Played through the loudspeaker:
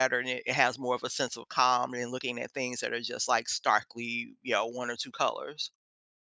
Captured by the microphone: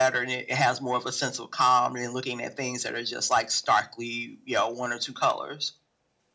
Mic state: echo only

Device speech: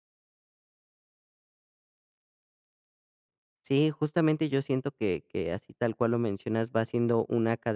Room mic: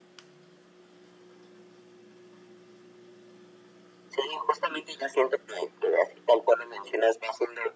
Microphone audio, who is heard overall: echo only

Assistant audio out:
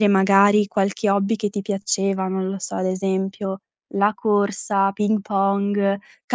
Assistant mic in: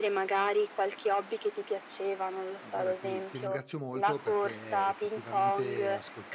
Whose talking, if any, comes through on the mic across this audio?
both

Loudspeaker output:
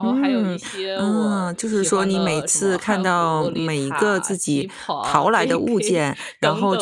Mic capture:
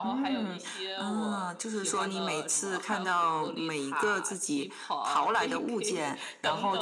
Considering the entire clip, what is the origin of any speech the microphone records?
echo only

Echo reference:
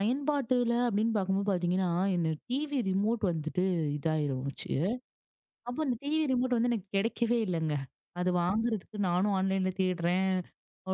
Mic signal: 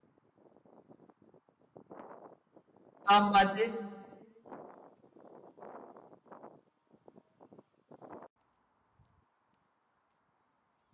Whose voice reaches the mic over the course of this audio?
user only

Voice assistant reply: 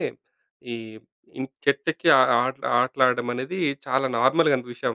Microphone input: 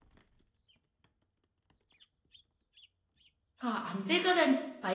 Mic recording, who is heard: user only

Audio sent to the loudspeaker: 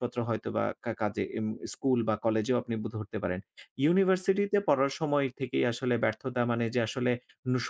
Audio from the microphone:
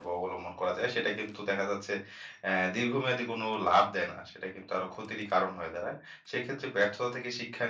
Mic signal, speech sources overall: user only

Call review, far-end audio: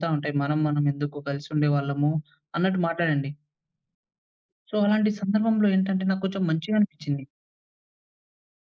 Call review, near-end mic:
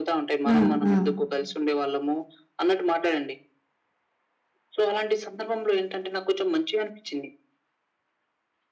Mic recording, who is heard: both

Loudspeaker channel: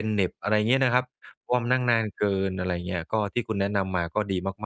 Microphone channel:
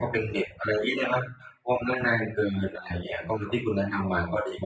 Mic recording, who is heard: echo only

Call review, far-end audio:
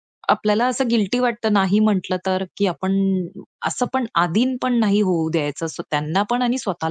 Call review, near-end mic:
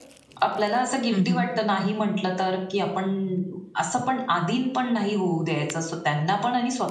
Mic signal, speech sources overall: both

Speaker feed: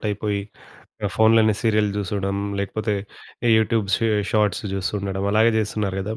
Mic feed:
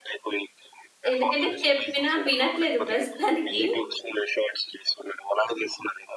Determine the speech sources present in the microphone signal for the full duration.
both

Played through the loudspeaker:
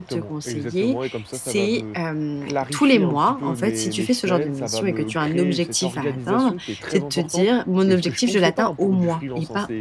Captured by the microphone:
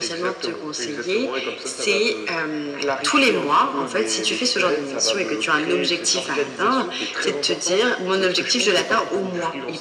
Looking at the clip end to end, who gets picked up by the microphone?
echo only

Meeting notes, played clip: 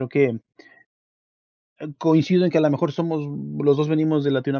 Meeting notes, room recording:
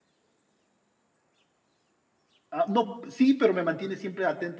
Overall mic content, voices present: user only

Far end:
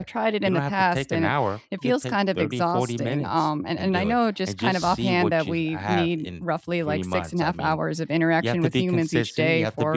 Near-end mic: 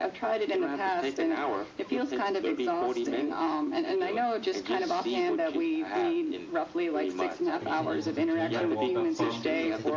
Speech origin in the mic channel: both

